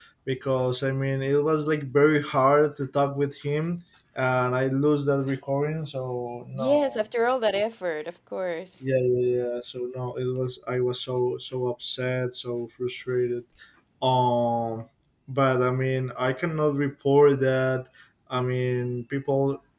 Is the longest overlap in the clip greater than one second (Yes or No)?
No